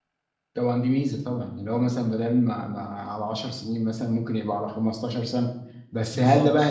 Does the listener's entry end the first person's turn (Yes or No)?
No